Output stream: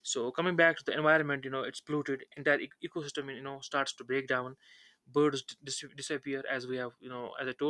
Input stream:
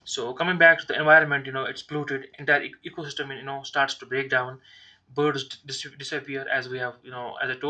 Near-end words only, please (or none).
none